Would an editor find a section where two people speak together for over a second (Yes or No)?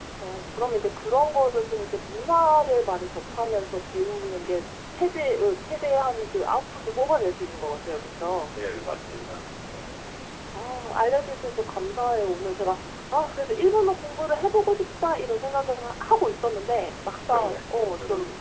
No